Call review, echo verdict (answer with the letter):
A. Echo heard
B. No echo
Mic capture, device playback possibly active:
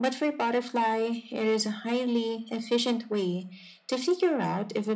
A